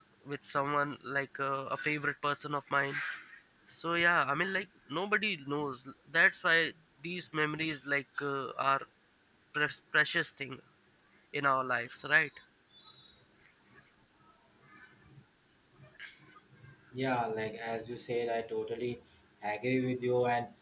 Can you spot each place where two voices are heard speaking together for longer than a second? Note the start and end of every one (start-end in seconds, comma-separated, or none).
none